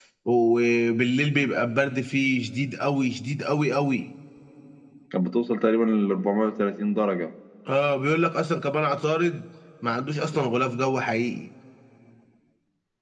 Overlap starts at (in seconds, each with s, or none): none